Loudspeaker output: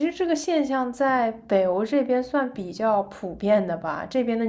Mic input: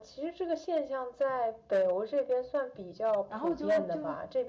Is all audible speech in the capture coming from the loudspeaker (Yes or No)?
No